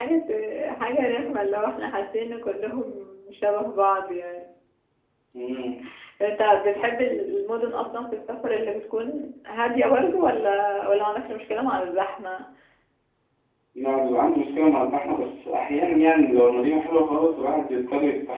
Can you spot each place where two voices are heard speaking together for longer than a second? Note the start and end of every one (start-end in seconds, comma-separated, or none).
none